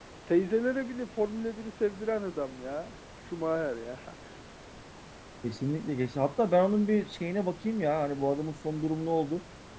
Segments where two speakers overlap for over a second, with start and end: none

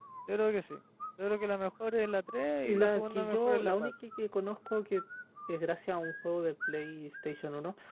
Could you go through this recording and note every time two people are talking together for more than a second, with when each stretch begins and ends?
2.6-3.9

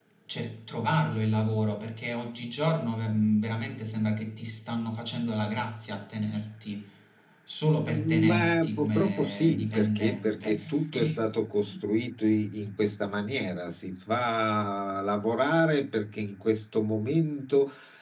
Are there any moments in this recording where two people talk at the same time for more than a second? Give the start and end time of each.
7.9-11.2

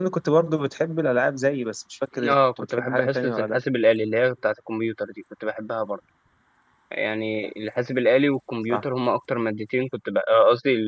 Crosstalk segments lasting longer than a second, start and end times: 2.3-3.6

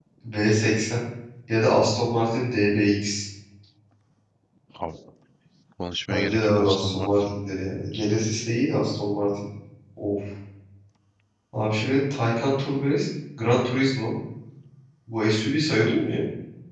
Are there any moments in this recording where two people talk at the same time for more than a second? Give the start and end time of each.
6.1-7.4

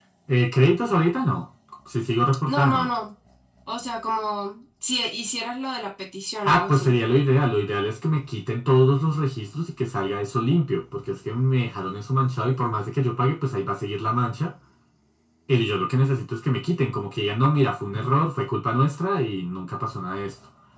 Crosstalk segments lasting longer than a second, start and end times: none

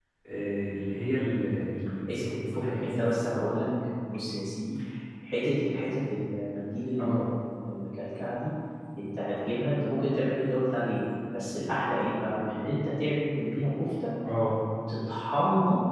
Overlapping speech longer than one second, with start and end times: 2.1-3.3

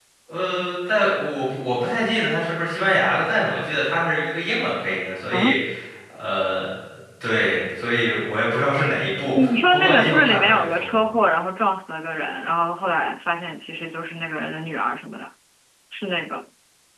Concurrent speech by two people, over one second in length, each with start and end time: 9.3-11.0

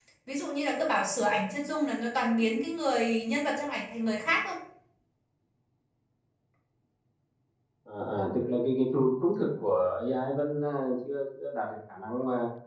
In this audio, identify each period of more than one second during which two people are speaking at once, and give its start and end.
none

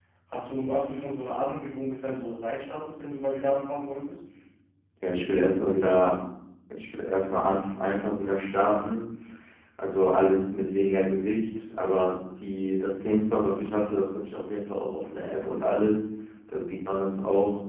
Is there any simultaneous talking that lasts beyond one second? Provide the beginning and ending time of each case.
none

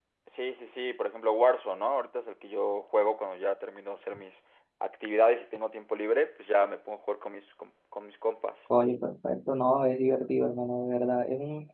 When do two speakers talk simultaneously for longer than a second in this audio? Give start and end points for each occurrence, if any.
none

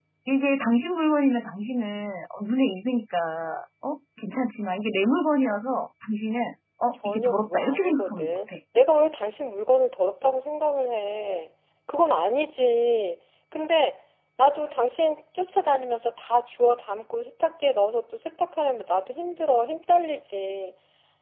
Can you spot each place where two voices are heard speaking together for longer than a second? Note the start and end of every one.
7.0-8.6

